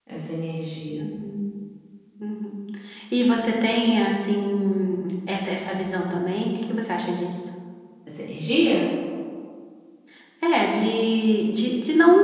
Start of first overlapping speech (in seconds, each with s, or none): none